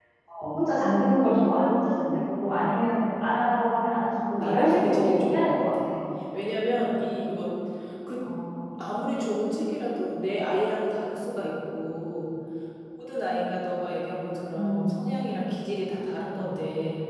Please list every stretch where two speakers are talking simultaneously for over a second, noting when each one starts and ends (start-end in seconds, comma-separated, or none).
4.4-5.6